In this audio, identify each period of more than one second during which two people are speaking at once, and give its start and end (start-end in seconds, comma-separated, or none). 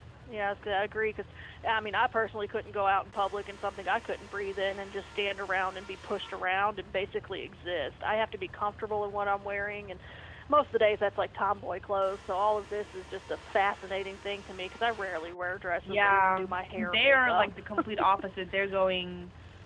15.8-17.5